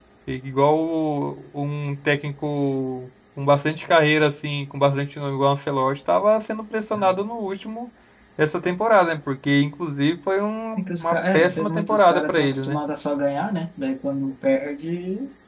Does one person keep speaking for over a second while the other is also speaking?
Yes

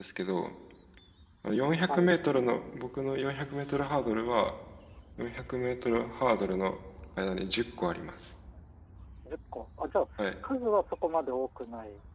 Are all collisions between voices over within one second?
Yes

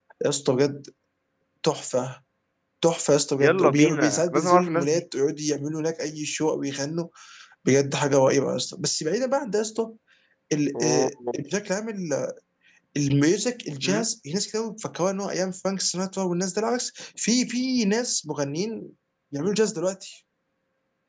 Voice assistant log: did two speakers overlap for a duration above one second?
Yes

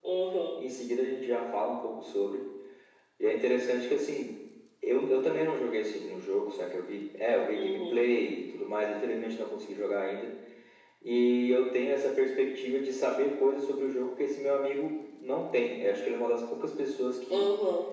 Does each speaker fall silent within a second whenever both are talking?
Yes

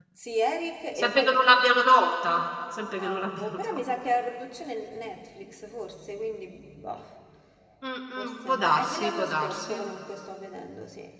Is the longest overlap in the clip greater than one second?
Yes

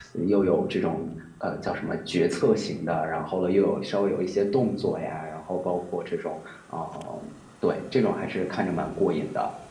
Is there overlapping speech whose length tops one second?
No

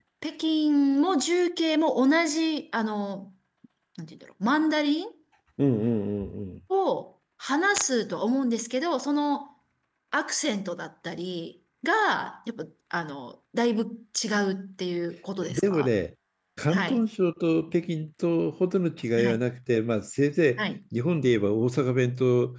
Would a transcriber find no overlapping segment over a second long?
Yes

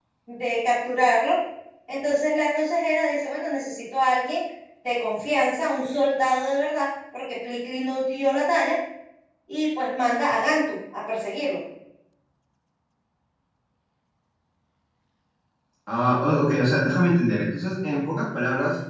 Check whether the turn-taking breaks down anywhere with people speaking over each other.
No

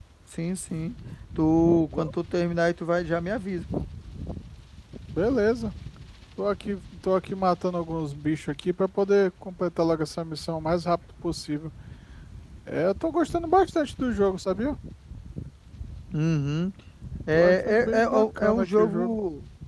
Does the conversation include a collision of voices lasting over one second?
Yes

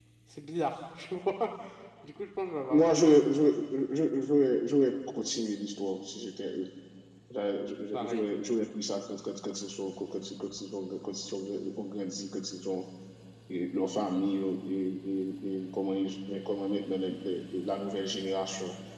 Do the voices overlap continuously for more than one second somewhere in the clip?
No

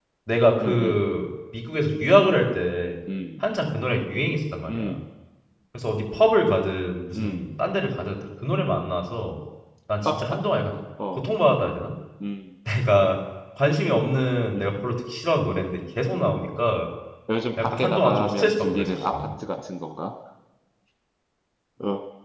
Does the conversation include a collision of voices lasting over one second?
Yes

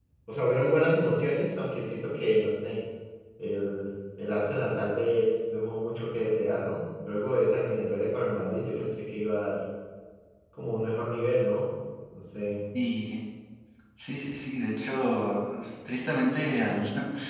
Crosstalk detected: No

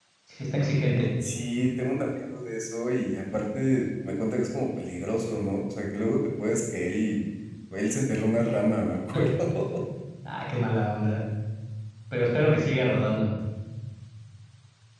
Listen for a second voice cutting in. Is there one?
No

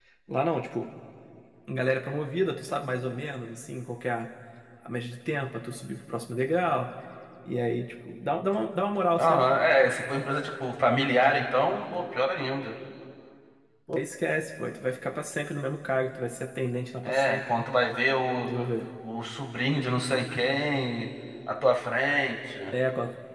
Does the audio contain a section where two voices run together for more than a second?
No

